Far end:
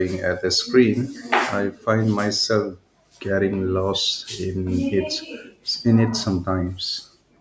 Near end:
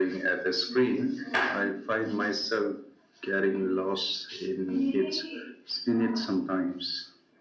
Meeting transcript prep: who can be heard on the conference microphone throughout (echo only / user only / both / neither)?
echo only